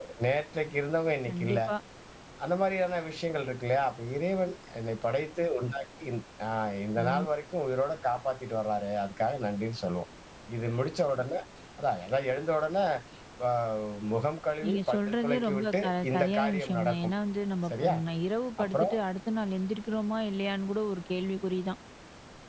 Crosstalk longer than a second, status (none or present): present